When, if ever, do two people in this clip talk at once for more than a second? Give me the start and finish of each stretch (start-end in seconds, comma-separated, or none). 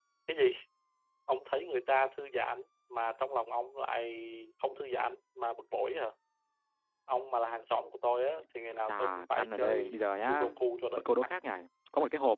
8.8-10.4